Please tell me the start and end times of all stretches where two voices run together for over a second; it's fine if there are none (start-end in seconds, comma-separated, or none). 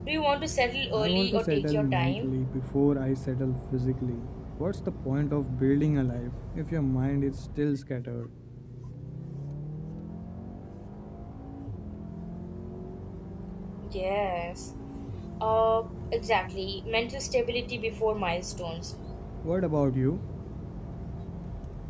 0.9-2.3